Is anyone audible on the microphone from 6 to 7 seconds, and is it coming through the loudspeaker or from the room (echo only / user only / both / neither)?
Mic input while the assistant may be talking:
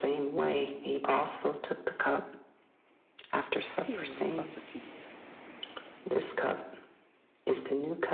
echo only